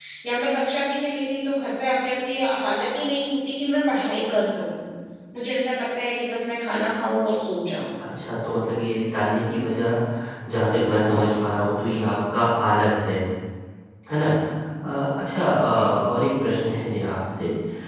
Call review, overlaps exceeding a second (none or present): none